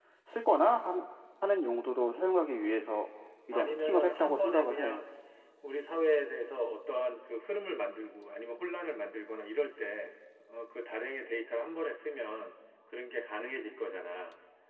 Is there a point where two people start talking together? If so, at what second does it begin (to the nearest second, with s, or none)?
4 s